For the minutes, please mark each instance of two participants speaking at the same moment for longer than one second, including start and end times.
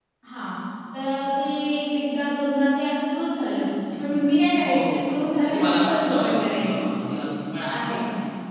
5.4-6.8

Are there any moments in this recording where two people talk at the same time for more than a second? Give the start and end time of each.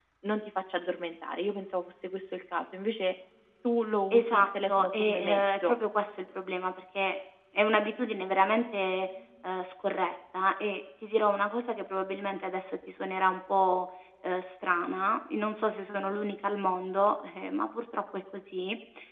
4.1-5.7

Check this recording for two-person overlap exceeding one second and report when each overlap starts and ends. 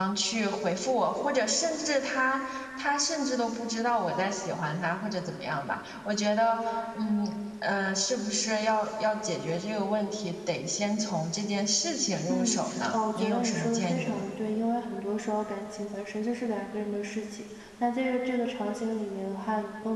12.3-14.3

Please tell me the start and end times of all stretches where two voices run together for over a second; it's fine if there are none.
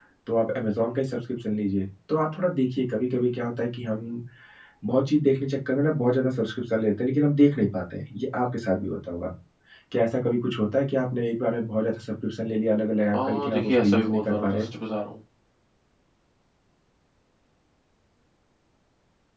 13.1-14.7

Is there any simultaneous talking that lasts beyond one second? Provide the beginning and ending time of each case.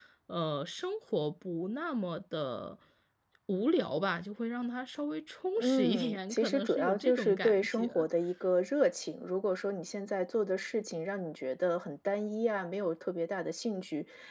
5.6-8.1

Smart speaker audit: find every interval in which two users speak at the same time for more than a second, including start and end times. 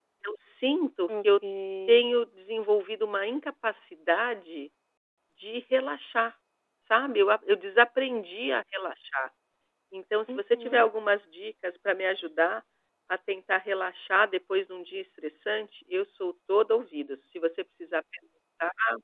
none

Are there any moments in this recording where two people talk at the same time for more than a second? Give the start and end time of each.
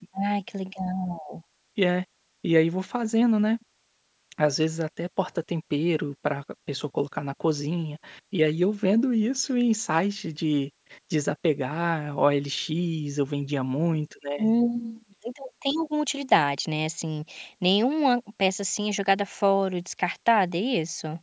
none

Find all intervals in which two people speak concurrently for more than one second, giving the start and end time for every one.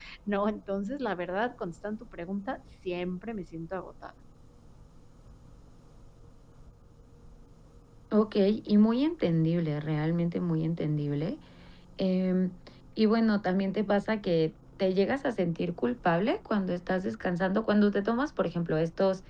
none

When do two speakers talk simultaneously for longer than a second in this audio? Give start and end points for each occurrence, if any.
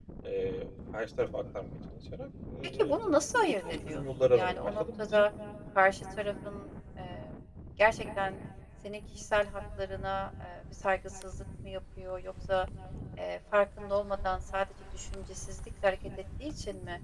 3.6-5.2

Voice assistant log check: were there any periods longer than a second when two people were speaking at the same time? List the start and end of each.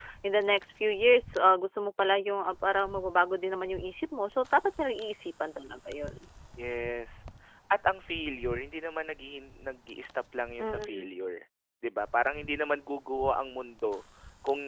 none

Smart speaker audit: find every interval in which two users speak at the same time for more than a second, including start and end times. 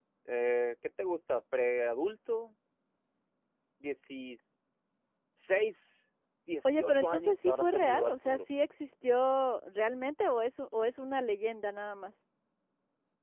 6.7-8.4

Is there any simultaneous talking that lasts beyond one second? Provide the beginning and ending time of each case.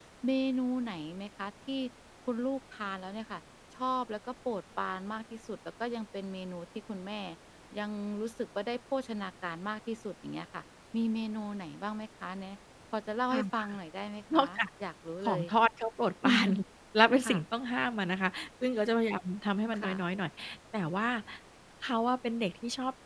none

